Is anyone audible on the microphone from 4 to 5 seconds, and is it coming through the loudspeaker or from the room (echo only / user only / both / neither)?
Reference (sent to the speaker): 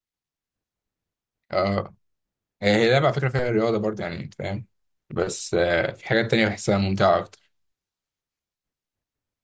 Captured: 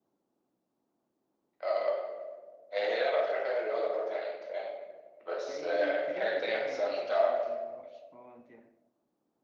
echo only